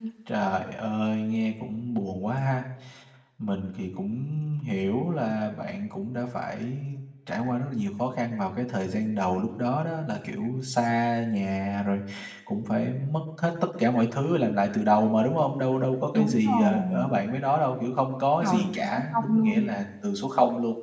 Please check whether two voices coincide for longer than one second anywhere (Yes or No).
Yes